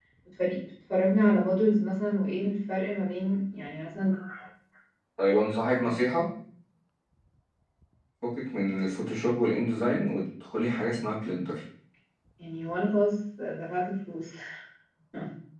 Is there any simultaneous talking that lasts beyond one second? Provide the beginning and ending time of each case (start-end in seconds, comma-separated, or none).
none